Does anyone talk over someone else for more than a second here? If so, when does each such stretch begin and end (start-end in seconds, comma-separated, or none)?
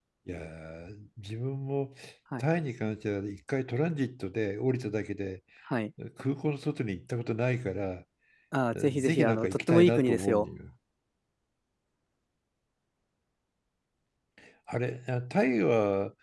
8.9-10.5